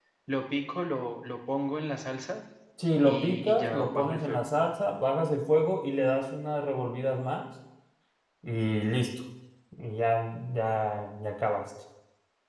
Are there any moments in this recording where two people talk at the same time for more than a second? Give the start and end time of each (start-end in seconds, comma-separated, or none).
3.0-4.5